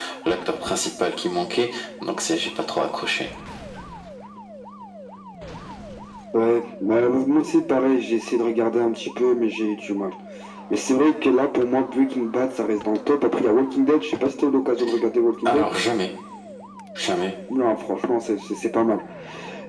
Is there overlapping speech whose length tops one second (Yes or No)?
No